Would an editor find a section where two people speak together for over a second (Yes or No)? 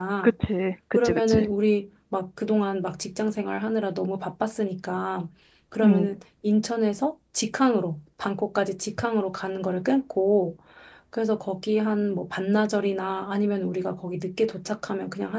No